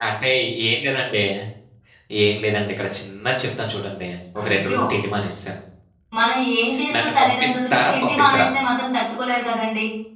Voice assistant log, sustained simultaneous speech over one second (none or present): present